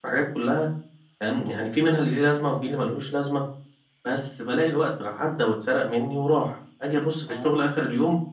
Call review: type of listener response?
listening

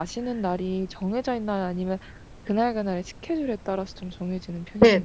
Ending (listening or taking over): taking over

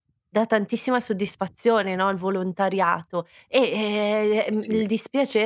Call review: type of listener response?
listening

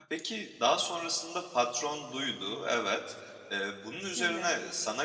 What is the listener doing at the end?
listening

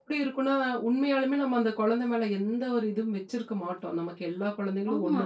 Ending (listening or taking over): listening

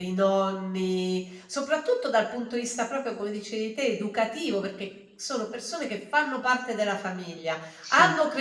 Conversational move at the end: listening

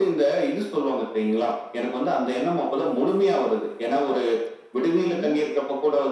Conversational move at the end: listening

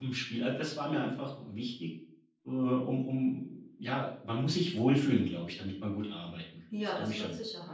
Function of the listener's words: taking over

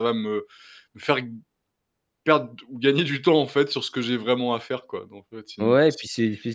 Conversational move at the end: taking over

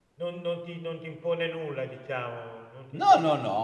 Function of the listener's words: taking over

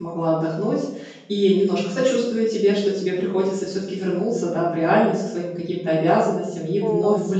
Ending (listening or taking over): listening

